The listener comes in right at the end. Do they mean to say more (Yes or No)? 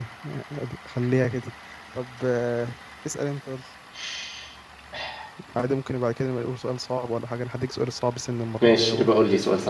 Yes